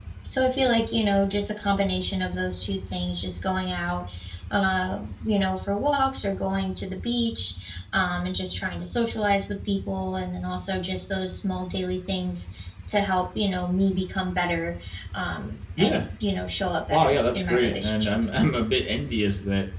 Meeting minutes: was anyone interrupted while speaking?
Yes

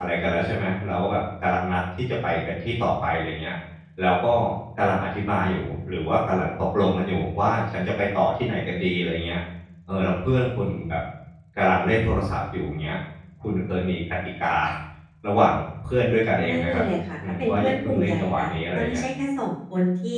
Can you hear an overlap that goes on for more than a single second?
Yes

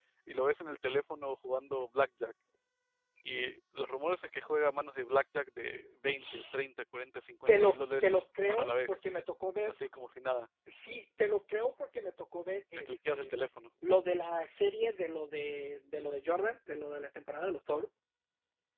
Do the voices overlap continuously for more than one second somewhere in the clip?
Yes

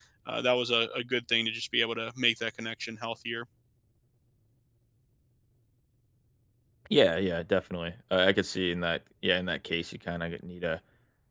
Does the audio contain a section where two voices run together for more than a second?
No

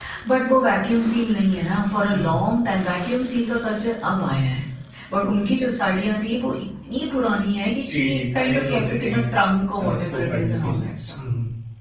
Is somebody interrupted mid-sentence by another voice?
Yes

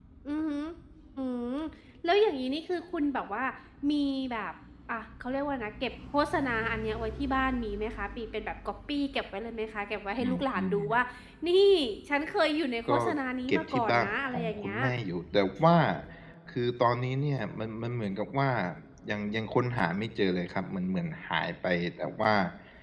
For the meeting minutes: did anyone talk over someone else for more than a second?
Yes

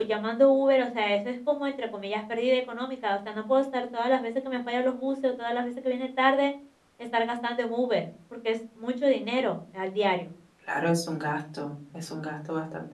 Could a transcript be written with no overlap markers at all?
Yes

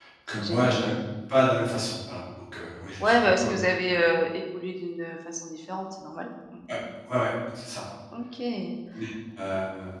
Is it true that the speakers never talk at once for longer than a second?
Yes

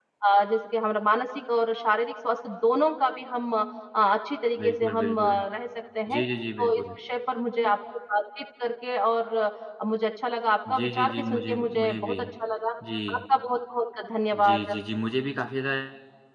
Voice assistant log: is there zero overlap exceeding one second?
No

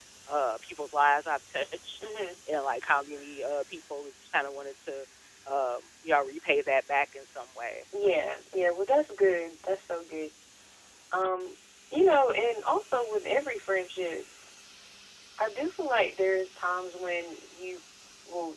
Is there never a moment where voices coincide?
Yes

